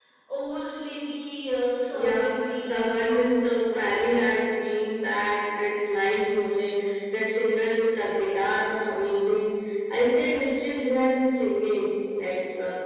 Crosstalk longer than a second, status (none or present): present